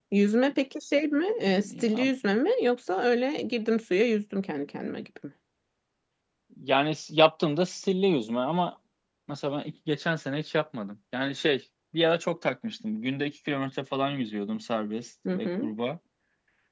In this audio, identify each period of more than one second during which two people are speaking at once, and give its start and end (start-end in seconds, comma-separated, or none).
none